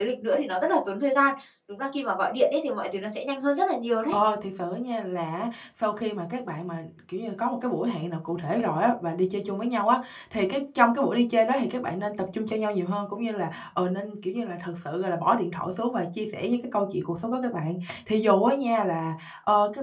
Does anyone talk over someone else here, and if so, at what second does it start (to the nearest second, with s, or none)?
none